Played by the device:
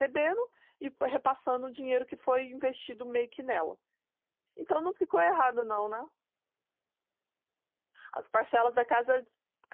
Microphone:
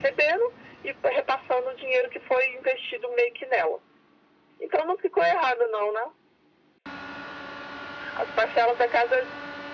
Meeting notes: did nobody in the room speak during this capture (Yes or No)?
Yes